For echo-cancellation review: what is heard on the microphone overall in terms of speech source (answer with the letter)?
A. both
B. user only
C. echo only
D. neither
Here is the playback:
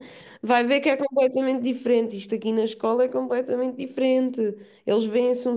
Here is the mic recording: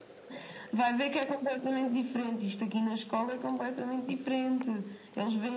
C